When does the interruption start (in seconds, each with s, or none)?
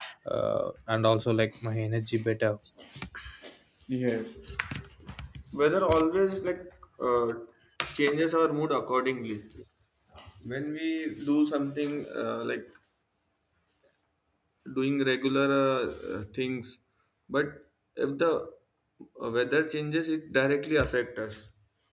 none